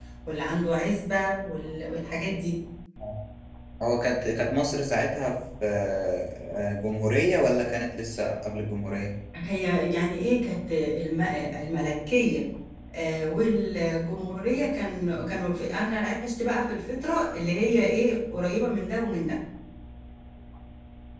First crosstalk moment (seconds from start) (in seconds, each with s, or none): none